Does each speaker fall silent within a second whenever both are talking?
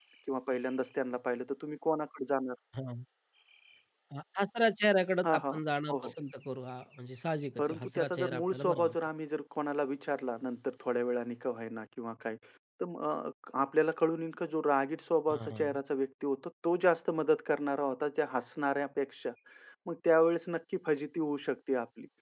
No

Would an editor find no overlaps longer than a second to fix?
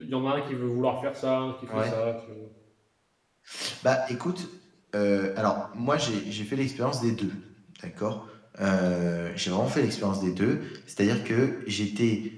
Yes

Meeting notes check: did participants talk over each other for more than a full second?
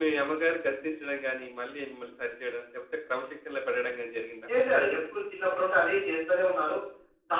No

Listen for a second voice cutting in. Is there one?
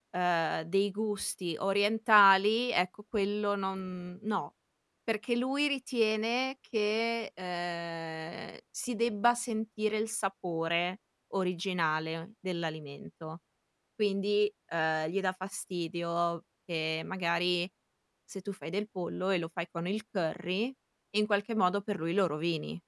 No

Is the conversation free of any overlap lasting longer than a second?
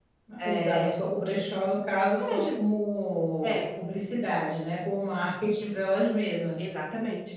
Yes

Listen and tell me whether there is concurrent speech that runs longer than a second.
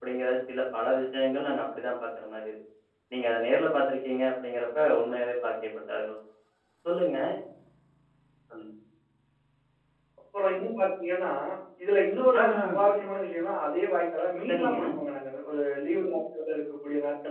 No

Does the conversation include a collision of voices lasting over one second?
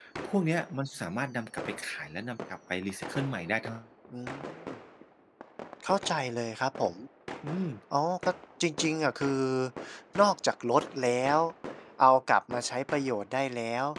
No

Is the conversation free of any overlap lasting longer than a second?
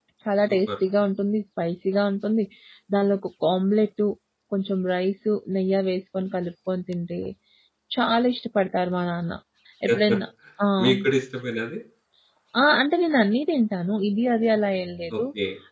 Yes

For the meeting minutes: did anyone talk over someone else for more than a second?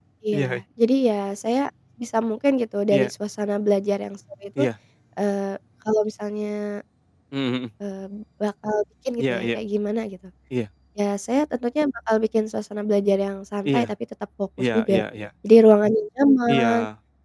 No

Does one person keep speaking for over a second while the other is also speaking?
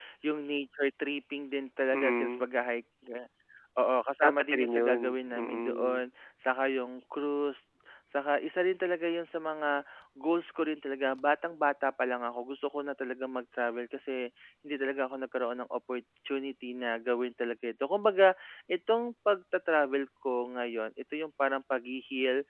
Yes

